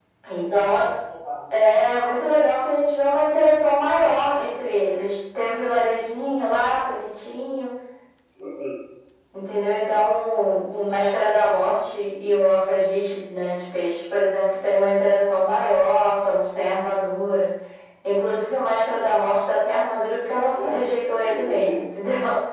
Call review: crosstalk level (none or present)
present